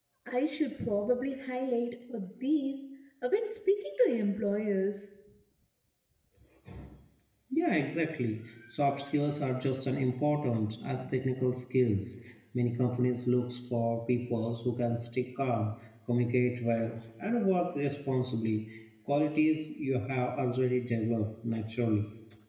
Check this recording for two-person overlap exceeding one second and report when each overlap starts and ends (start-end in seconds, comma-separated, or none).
none